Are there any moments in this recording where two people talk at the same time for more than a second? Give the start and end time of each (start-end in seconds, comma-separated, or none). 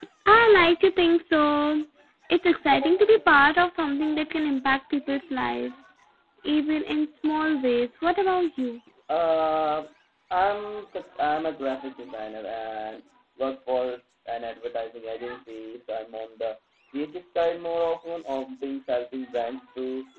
none